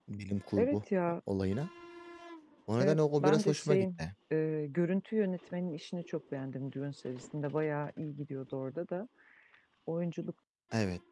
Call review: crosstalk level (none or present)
present